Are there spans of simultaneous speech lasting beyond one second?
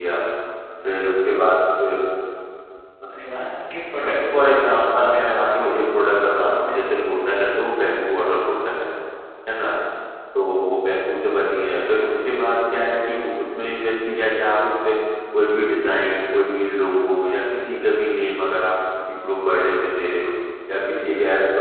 Yes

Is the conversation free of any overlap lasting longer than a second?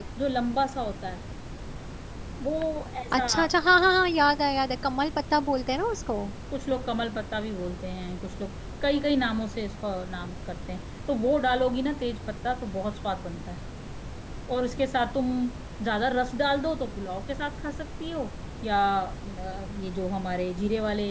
Yes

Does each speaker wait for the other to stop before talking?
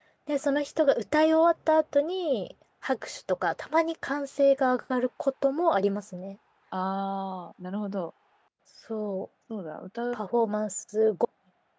Yes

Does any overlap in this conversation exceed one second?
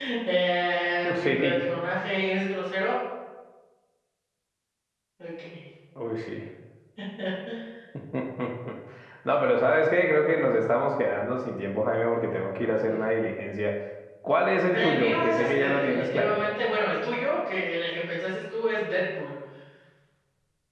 Yes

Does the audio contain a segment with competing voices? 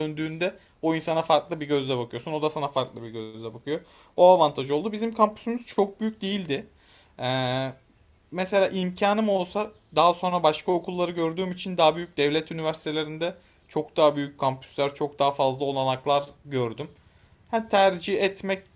No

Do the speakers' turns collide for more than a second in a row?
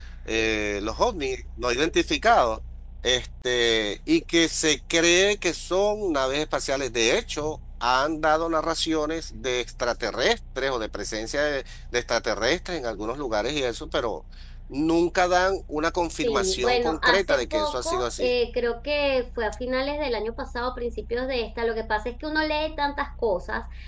Yes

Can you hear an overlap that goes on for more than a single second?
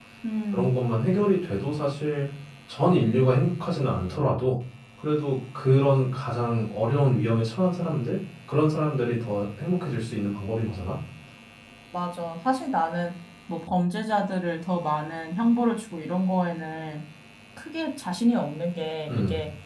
No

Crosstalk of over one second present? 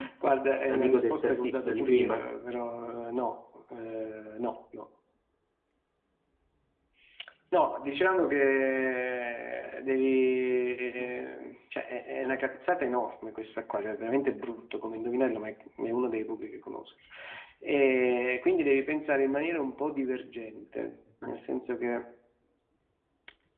Yes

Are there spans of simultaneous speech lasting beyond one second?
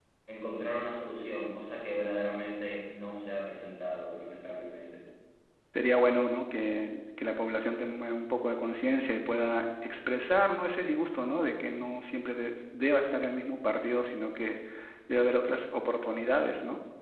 No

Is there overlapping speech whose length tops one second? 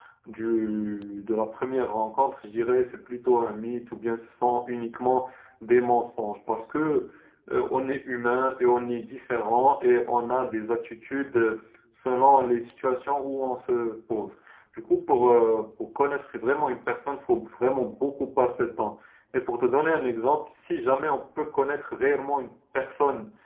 No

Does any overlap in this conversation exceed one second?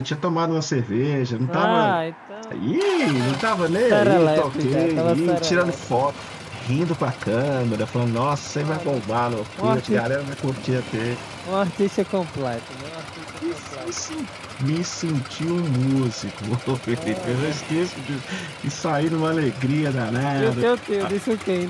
Yes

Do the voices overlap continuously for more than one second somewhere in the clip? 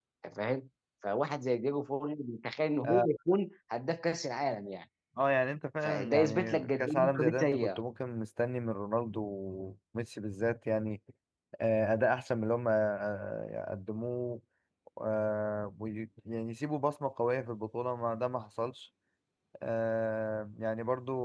Yes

